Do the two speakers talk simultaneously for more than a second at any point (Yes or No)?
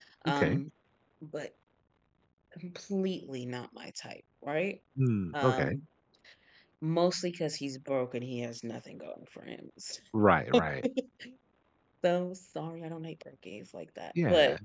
No